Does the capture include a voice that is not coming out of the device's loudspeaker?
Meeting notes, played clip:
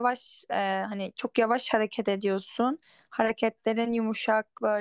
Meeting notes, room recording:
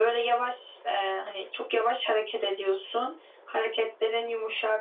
No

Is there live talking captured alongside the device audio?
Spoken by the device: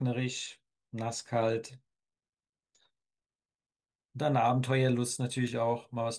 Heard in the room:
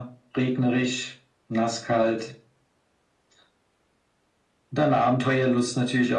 No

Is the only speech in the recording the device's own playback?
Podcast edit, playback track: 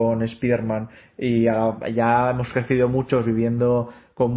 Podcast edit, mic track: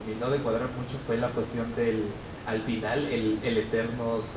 No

